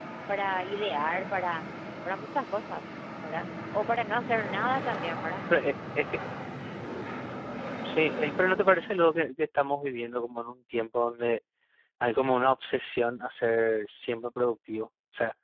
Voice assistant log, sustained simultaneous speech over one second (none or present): none